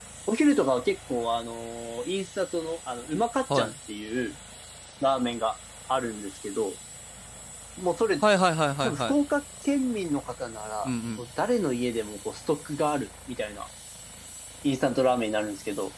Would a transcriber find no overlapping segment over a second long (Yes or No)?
Yes